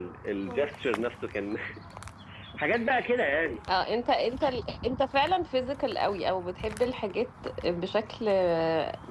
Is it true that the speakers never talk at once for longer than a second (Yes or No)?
Yes